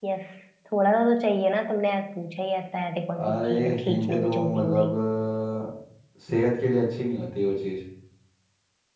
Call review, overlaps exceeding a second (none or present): present